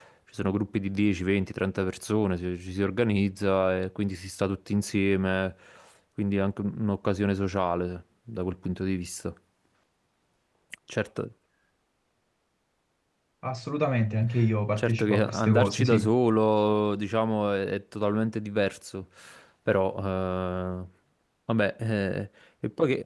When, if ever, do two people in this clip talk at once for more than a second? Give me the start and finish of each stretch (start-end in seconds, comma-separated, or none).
14.8-16.1